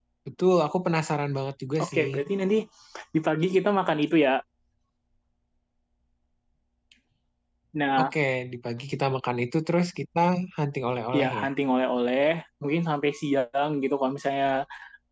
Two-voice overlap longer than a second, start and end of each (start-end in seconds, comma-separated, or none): none